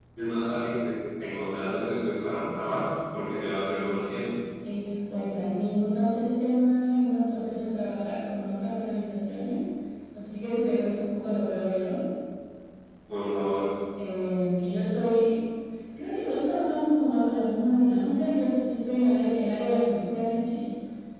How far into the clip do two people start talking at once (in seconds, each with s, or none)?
none